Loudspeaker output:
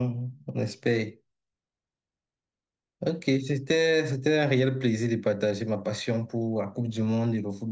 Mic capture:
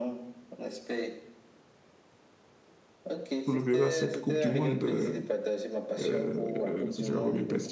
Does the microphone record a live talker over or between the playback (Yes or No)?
Yes